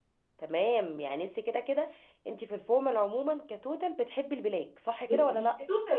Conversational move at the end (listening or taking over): taking over